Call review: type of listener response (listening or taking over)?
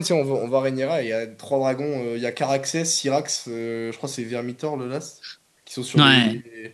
listening